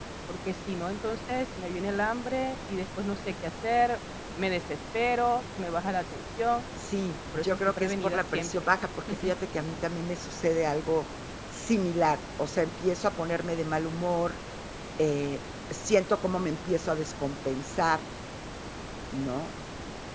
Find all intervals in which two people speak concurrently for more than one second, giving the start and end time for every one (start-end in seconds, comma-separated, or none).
7.3-8.7